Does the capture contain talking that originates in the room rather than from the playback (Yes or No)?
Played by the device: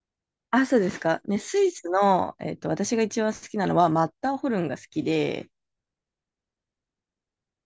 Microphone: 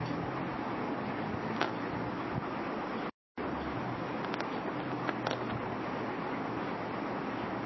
No